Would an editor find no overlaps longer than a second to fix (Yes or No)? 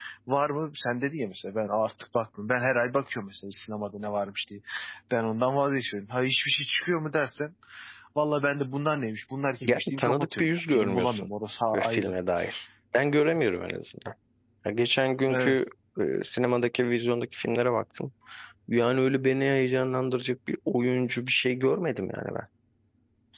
No